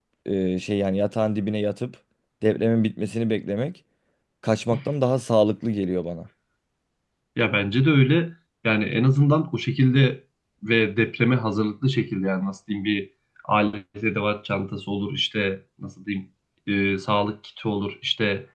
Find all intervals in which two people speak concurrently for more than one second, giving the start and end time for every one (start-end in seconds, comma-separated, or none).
none